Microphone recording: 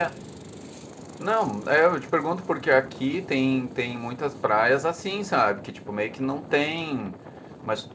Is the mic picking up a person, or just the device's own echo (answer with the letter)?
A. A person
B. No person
A